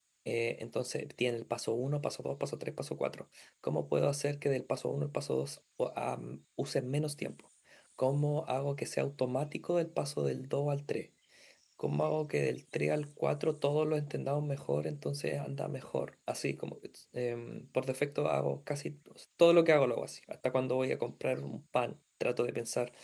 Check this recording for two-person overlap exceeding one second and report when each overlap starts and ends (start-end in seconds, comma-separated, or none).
none